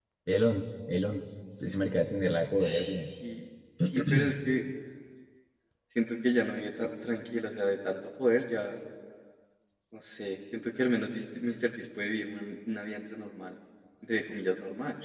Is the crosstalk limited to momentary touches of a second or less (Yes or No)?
Yes